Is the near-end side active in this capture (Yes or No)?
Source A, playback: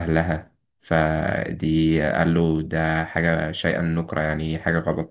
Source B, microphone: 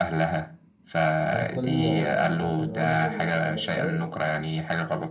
Yes